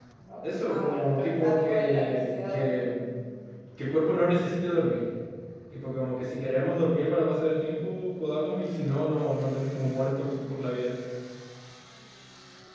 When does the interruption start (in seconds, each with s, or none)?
0.5 s